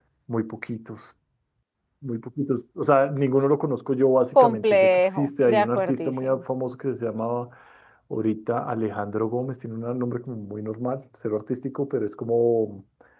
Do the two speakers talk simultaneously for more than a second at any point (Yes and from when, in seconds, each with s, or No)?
Yes, from 4.3 s